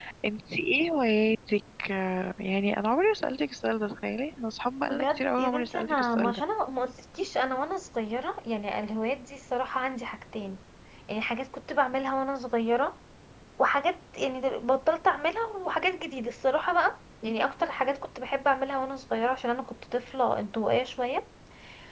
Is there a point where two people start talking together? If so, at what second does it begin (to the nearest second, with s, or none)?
5 s